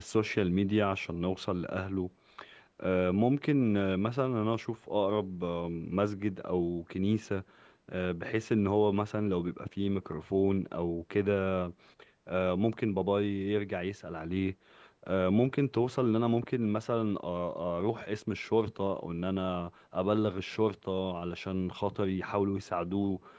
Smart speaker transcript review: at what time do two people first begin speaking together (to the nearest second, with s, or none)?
none